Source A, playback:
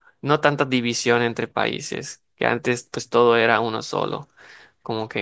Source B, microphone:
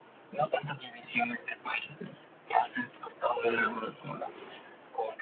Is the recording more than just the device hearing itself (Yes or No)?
Yes